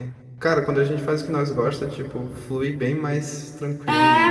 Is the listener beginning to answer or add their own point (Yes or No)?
Yes